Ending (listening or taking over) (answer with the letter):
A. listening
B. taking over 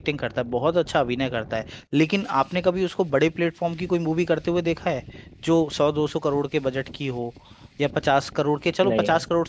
A